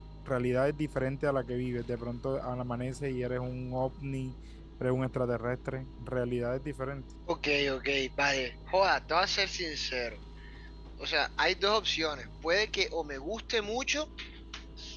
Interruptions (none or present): none